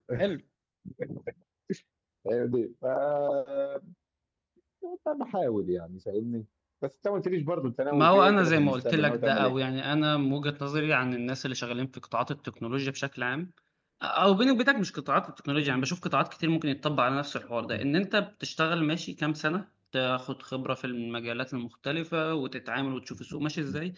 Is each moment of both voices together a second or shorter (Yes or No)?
No